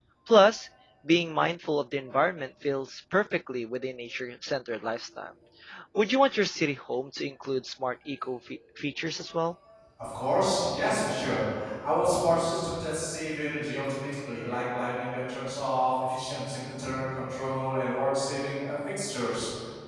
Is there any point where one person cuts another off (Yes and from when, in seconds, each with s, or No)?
No